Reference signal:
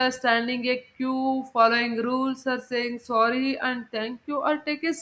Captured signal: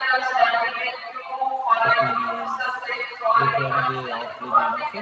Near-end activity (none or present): present